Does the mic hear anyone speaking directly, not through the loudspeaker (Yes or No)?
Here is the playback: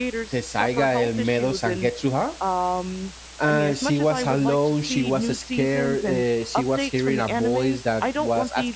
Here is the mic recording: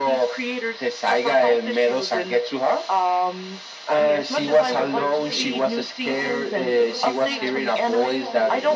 Yes